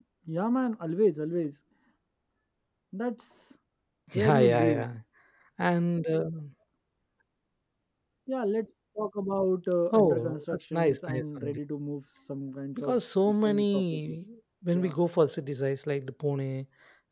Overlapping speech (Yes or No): Yes